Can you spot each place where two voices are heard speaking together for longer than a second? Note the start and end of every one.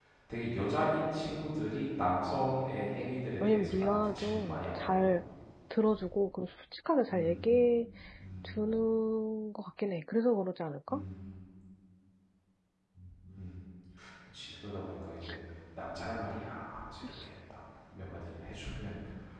3.5-5.1

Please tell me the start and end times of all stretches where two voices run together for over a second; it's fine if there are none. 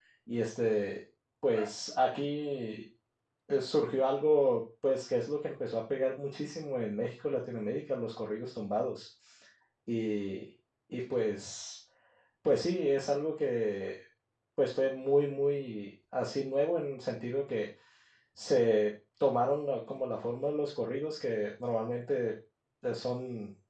none

